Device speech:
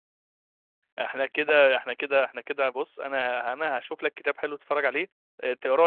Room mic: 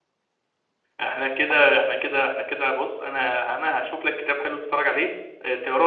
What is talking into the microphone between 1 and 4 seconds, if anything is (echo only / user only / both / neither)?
echo only